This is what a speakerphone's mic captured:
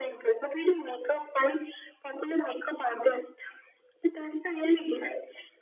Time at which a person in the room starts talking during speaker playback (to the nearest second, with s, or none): none